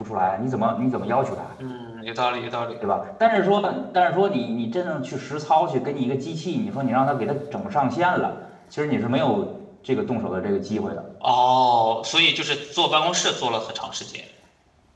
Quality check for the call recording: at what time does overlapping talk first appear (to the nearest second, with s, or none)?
none